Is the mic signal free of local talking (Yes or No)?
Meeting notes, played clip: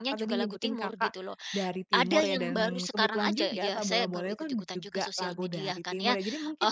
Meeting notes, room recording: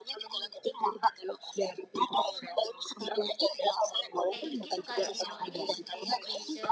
No